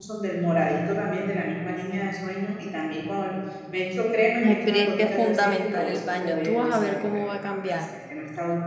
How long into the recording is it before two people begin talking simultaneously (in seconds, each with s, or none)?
4.4 s